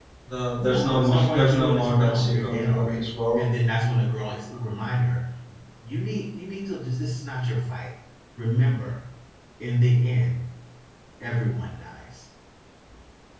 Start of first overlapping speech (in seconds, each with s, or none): 0.6 s